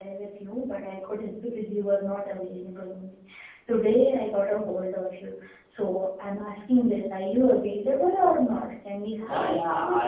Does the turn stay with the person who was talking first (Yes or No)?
No